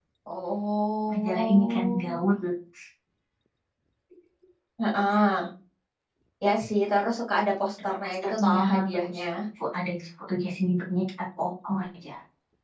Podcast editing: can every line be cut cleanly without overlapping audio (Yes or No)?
No